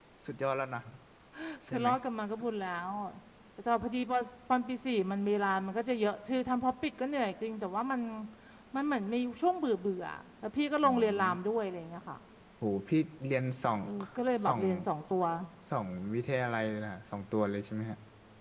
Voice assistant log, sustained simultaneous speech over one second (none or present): none